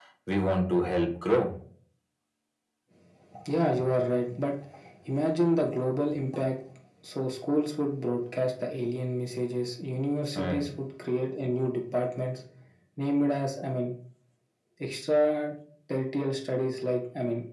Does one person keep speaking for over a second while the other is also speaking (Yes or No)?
No